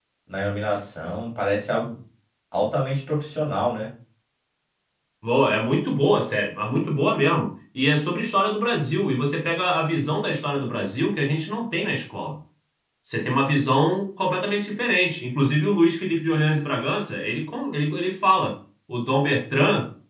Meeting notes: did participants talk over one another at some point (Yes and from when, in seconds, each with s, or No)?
No